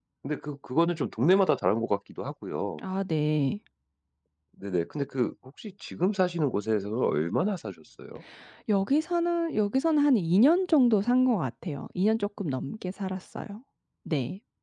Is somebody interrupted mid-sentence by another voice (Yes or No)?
No